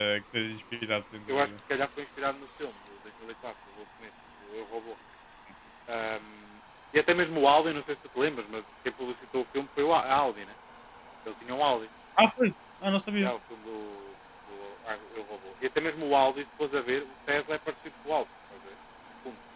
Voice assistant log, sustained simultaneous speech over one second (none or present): none